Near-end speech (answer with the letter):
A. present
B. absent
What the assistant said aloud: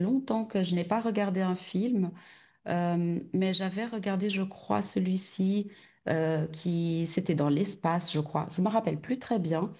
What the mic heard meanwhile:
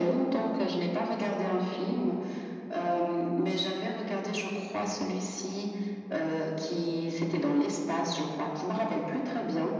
B